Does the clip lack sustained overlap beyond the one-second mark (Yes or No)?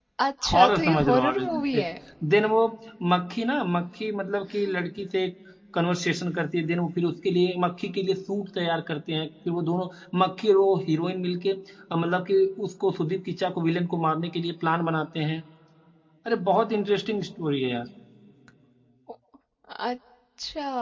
No